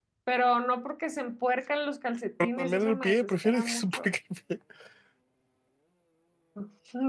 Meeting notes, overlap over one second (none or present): present